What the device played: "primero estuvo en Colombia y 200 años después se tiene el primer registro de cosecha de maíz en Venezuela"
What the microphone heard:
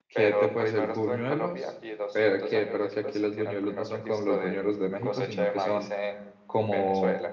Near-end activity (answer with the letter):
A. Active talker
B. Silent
A